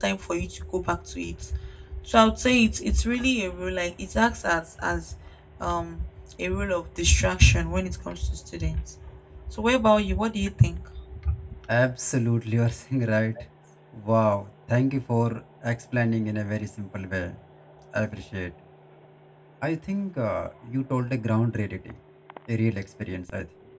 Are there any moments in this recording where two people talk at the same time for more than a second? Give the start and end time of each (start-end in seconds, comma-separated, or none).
none